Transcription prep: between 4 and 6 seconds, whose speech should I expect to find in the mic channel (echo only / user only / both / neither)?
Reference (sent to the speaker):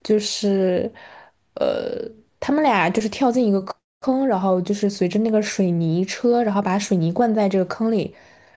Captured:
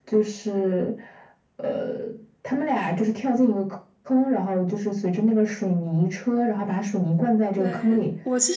echo only